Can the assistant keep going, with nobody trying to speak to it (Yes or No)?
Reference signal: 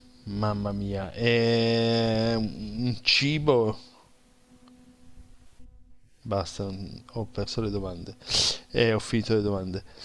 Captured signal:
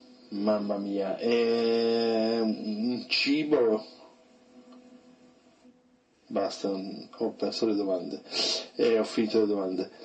Yes